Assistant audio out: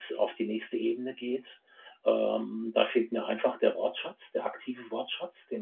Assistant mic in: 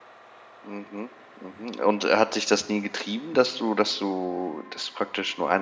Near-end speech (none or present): present